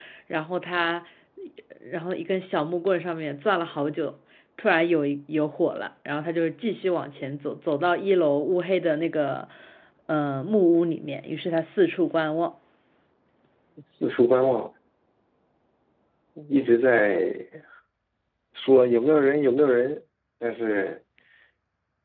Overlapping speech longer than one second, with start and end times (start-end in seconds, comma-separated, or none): none